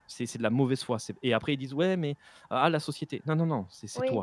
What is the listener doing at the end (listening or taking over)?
taking over